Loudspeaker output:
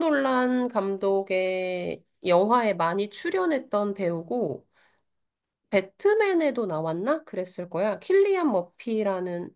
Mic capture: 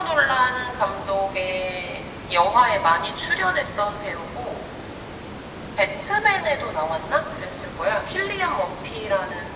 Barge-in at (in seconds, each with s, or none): none